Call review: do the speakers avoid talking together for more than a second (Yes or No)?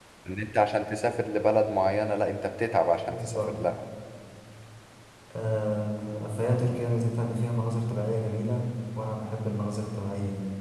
Yes